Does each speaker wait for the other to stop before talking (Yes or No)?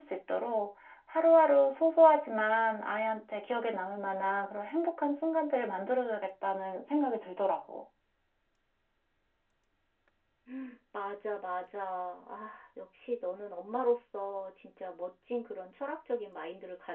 Yes